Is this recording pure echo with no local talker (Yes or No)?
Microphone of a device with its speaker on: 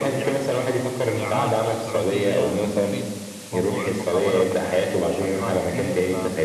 No